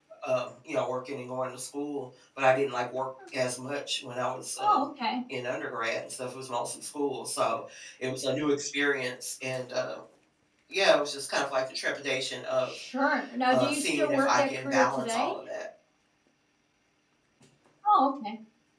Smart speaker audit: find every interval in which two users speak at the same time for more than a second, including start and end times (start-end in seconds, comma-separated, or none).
13.5-15.3